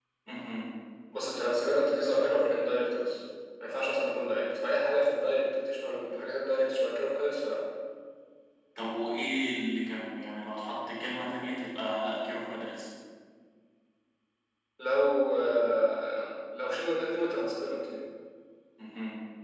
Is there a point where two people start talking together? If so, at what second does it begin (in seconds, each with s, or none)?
none